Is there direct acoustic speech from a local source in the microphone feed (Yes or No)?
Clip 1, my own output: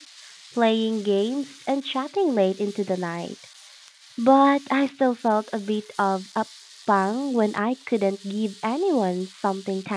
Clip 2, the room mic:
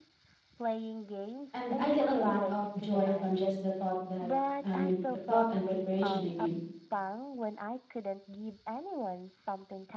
Yes